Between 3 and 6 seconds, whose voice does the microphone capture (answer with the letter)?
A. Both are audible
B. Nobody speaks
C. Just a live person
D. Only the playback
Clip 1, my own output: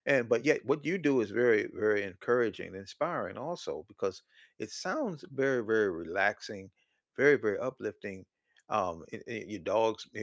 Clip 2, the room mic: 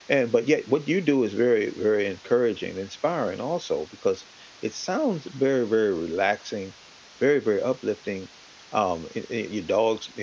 D